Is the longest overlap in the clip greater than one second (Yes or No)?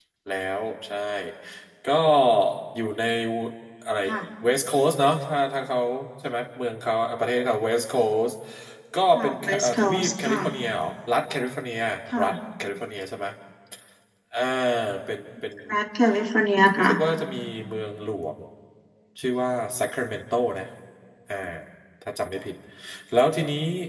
Yes